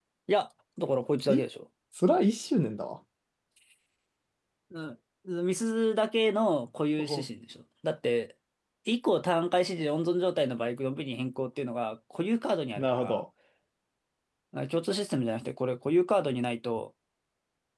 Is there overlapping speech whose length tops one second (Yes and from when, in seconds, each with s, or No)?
No